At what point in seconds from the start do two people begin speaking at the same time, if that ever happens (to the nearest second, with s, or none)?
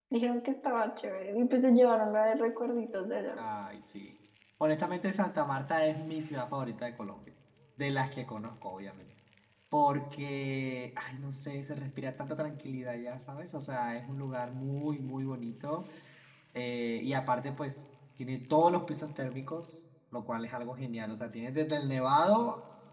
none